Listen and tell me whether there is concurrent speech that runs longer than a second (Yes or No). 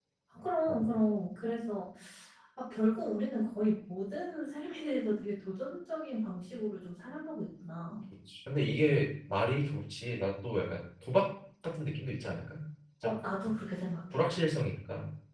No